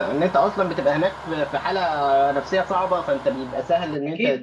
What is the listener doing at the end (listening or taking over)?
taking over